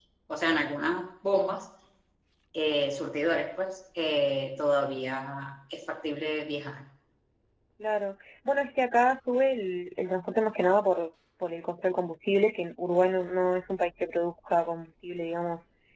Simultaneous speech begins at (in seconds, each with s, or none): none